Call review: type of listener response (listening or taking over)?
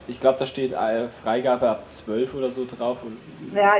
taking over